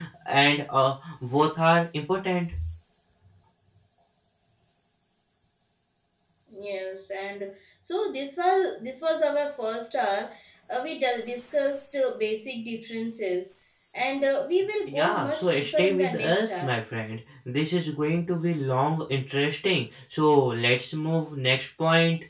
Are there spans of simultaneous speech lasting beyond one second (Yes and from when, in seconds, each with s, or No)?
Yes, from 14.9 s